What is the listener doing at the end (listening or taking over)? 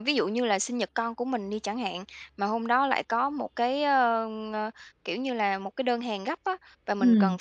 listening